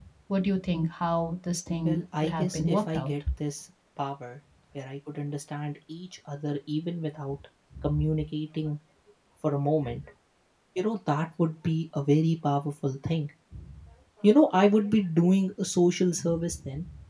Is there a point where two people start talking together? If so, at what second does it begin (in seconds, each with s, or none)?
1.9 s